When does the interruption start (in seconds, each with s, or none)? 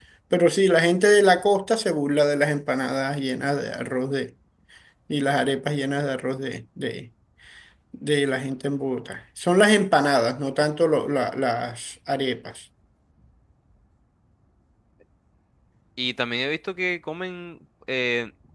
none